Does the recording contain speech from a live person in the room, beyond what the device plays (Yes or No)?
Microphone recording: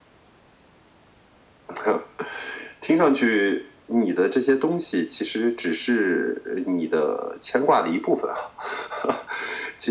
No